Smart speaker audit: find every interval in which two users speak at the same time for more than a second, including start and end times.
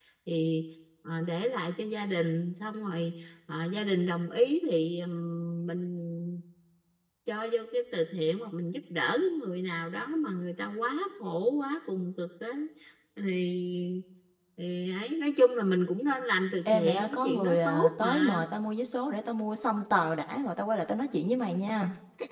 16.6-18.4

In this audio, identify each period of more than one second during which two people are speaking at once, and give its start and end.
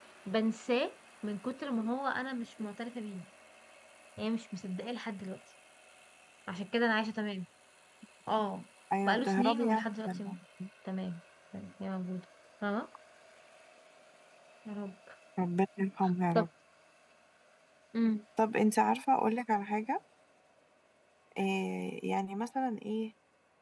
9.1-10.3

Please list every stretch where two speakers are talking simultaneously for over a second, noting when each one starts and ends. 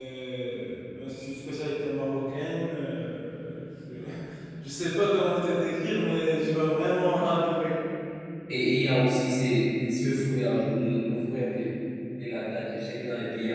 none

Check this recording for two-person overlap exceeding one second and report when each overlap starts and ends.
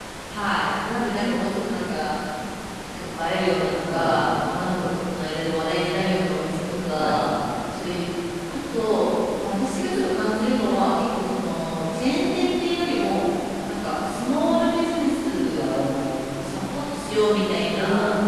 none

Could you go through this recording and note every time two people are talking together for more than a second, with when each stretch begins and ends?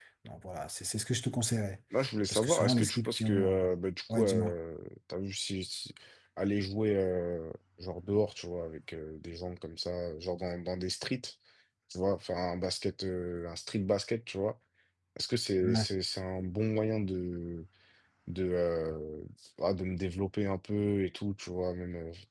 2.3-3.6

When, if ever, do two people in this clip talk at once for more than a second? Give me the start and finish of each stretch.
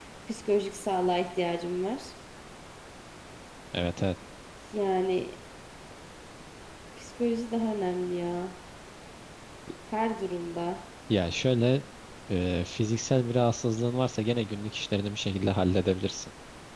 none

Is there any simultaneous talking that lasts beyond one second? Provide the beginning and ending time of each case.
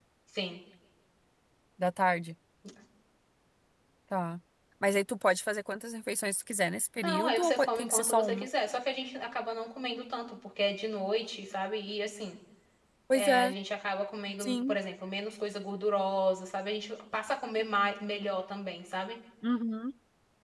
7.0-8.5

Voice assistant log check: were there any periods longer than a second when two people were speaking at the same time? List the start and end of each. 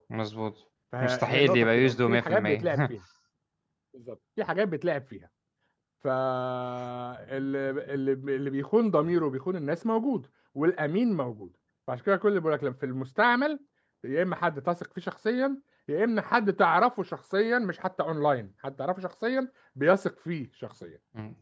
1.0-2.7

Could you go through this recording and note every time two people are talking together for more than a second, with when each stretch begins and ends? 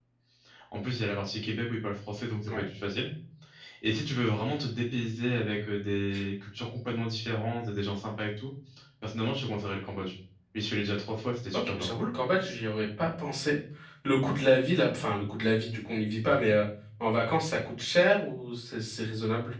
none

